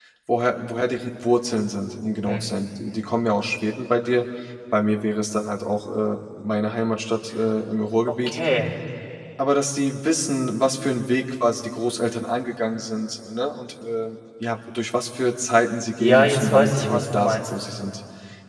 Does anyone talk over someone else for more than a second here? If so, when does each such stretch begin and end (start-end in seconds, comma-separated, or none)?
16.0-17.5